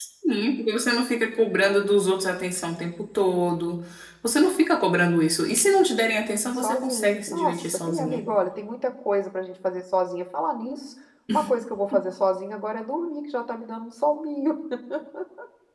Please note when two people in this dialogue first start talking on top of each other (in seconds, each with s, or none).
6.5 s